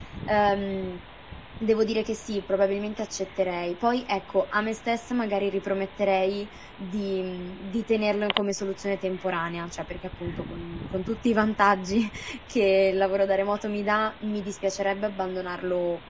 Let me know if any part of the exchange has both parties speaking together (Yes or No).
No